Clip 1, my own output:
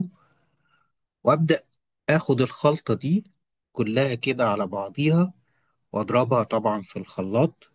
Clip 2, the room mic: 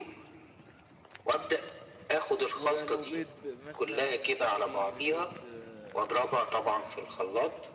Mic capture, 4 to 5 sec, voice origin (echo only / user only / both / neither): both